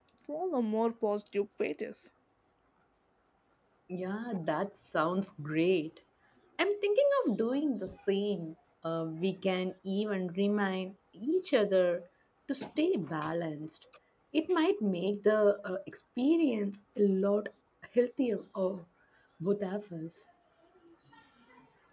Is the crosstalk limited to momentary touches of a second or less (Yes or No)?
Yes